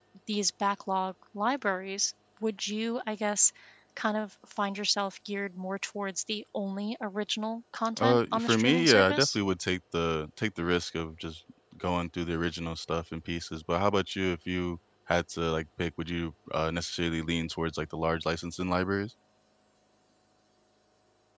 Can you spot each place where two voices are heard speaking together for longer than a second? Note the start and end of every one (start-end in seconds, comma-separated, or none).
8.0-9.4